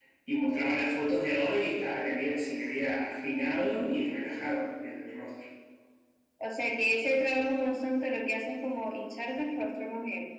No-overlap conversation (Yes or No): Yes